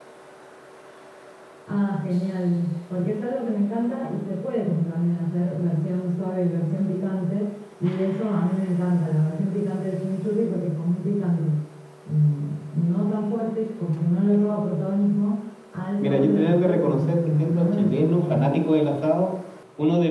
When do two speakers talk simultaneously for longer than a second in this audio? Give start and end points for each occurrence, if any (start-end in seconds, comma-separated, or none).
16.0-18.6